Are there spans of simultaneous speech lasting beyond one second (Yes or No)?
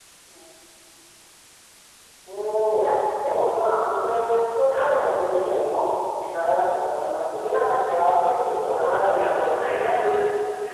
Yes